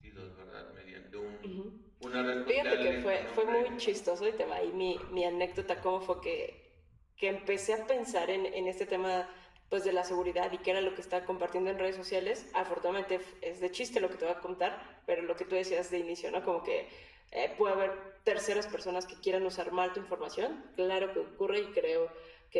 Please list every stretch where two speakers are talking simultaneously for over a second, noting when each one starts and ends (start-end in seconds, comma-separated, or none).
2.5-3.9